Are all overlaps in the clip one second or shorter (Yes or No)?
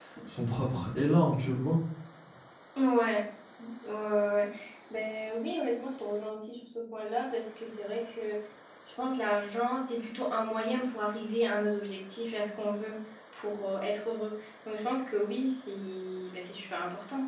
Yes